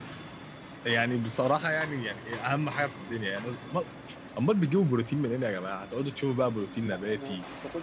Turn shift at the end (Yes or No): Yes